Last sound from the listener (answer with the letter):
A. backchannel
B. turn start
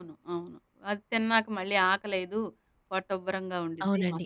B